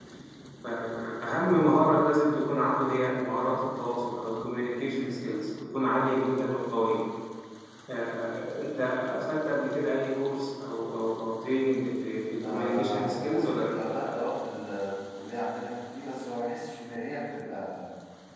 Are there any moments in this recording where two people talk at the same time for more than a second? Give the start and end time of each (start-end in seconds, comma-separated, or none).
12.4-13.7